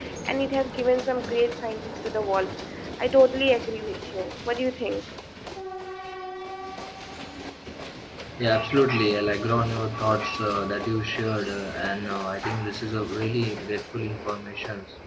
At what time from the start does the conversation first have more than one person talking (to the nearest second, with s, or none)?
none